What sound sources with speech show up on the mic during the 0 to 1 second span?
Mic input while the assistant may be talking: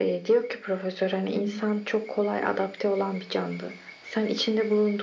echo only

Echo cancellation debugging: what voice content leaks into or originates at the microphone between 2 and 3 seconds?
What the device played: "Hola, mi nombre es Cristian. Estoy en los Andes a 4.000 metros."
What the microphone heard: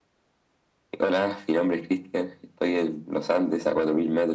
echo only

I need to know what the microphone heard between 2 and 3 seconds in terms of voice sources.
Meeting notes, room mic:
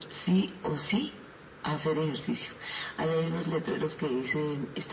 echo only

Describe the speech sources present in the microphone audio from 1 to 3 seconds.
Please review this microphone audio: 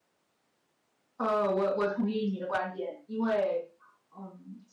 user only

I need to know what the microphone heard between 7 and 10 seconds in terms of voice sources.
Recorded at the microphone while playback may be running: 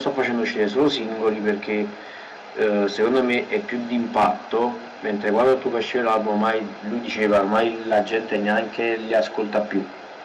echo only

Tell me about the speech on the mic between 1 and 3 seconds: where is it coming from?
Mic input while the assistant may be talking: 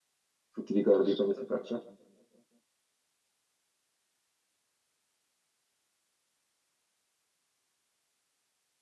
user only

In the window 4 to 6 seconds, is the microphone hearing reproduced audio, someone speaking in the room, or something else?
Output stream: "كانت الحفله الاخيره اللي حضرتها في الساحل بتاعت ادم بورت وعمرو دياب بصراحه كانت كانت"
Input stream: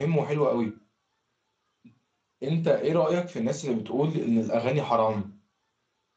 user only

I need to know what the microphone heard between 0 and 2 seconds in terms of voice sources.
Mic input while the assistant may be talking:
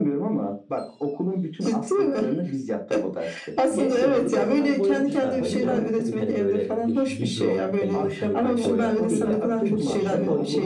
echo only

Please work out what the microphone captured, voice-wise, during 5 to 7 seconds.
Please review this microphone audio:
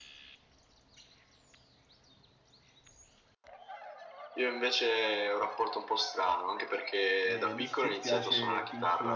echo only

